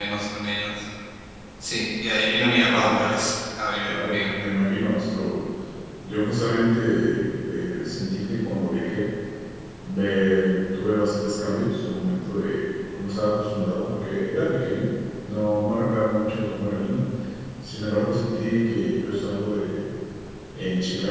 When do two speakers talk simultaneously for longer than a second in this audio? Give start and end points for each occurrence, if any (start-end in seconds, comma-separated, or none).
none